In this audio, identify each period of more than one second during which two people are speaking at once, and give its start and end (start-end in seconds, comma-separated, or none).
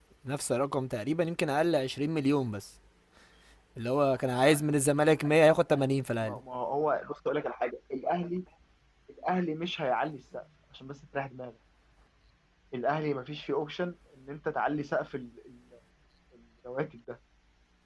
none